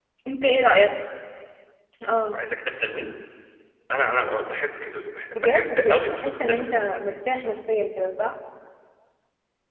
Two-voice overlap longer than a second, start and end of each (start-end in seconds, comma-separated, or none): 5.4-6.8